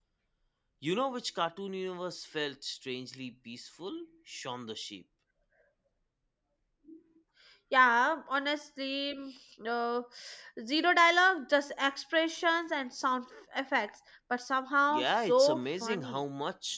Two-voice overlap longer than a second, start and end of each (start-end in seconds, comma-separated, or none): 14.9-16.2